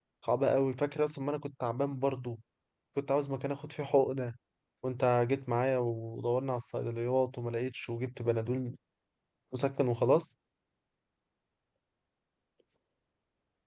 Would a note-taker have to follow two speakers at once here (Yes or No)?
No